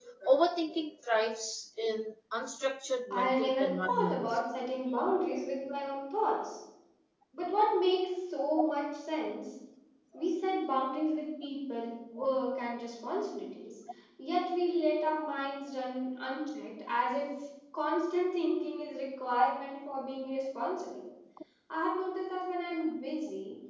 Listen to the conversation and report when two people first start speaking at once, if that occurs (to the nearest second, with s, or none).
3 s